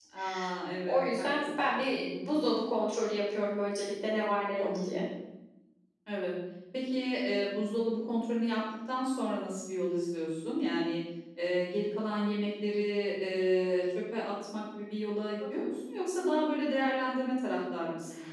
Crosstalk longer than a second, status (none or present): present